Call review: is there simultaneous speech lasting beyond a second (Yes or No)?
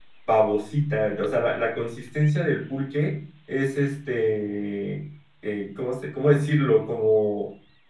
No